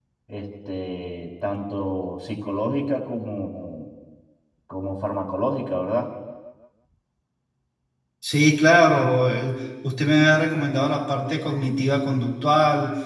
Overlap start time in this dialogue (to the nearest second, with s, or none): none